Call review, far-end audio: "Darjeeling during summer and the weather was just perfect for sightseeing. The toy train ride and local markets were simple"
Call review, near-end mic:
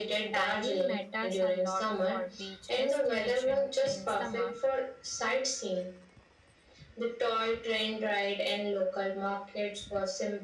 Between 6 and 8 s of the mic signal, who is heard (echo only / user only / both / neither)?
echo only